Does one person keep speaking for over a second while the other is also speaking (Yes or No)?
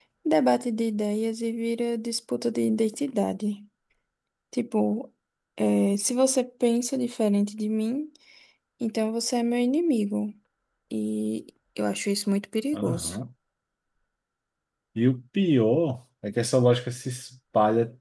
No